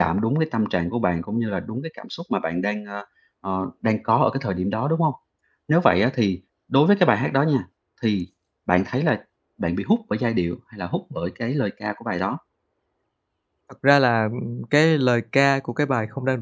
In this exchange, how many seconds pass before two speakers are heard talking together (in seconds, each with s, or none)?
none